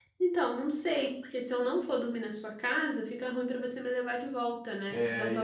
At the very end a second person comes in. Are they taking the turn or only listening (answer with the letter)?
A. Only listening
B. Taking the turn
B